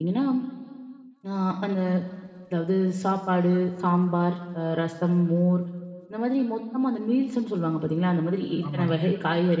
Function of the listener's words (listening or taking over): listening